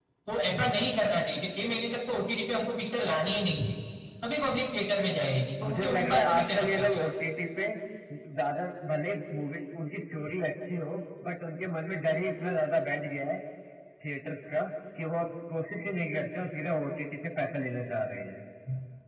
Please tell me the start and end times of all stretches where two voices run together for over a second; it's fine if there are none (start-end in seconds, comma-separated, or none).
5.6-7.0